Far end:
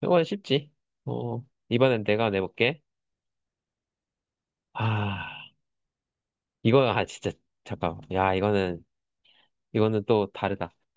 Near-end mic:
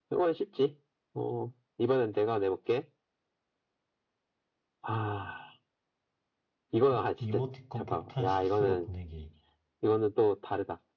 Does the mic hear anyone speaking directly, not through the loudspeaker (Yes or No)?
Yes